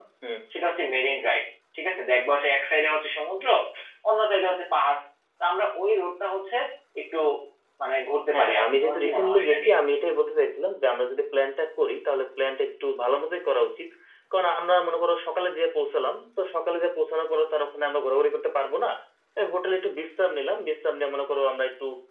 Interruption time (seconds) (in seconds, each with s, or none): 8.3 s